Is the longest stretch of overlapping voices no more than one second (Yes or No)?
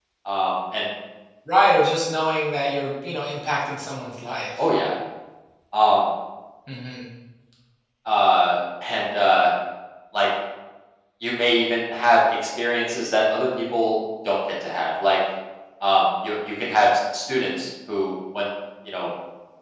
Yes